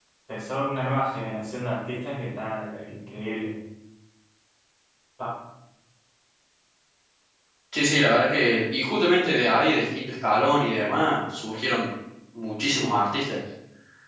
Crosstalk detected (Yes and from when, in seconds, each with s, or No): No